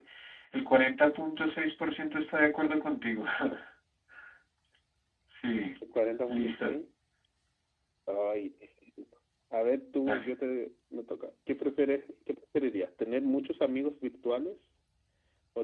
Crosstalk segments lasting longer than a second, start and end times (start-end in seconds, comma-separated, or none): none